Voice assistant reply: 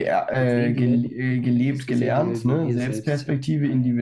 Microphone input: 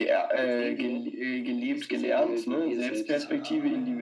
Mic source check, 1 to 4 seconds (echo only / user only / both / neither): both